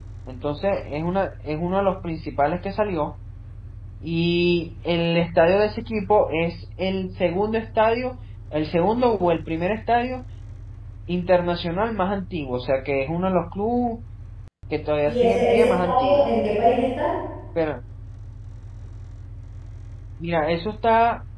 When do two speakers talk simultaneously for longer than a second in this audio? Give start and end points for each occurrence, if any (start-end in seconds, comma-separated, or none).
15.1-16.3